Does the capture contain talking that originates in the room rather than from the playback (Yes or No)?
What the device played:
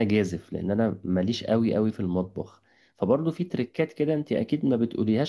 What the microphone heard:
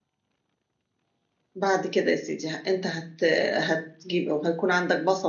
Yes